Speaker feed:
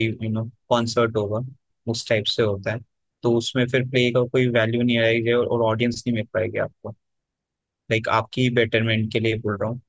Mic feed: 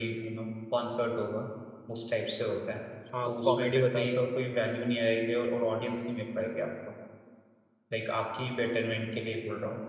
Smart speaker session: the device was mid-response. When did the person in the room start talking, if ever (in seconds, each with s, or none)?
3.1 s